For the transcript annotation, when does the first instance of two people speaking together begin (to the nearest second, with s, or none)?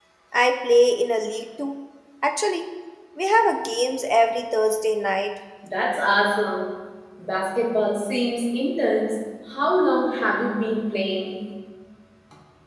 none